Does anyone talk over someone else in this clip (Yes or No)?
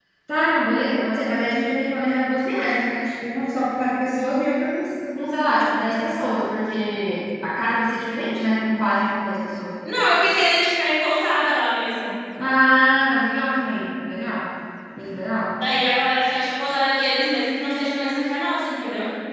No